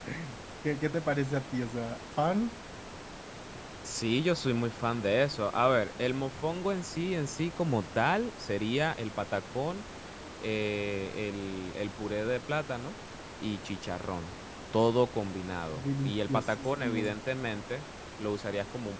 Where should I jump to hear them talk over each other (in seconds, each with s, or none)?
15.7 s